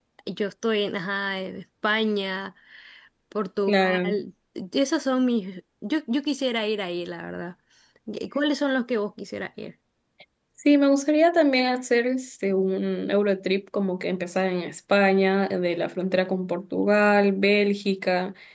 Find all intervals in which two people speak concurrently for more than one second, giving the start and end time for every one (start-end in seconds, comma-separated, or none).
none